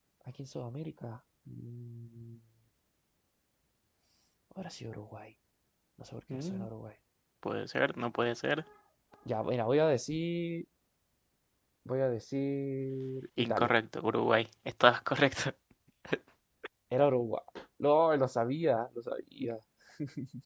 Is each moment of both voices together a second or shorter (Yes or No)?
Yes